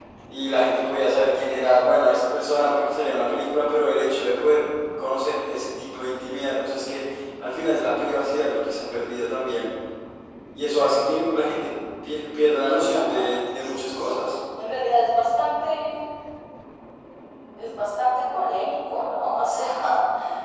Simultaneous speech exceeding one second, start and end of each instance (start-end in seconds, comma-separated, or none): 12.6-14.2